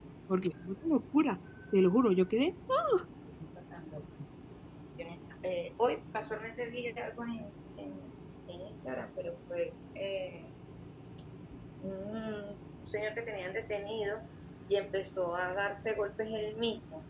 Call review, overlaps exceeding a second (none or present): none